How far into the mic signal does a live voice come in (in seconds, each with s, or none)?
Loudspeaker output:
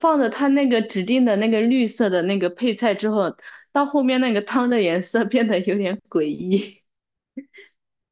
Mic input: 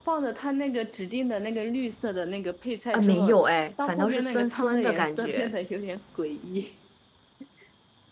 2.9 s